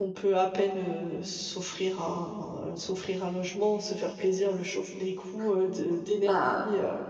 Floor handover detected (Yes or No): Yes